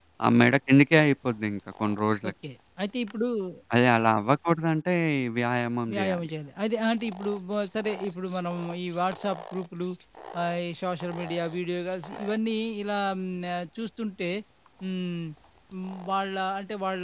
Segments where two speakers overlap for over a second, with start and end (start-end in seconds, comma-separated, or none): none